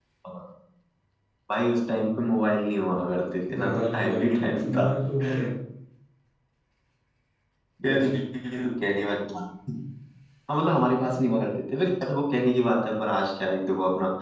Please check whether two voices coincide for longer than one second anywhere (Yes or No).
Yes